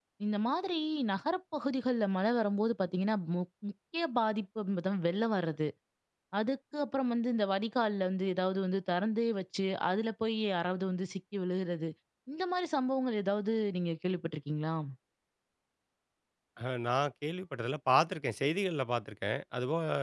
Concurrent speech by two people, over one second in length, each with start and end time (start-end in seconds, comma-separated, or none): none